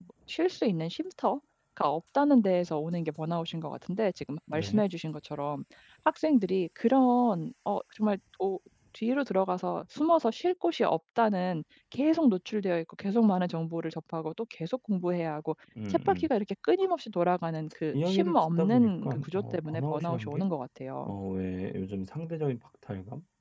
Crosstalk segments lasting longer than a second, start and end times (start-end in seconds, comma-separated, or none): 17.9-20.5